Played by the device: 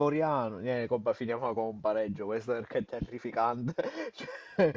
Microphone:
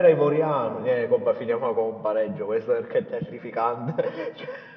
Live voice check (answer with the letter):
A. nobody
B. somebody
A